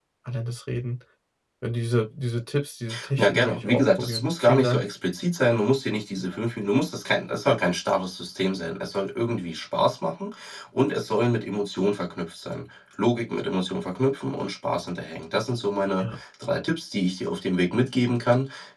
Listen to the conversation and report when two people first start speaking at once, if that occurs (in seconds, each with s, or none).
3.2 s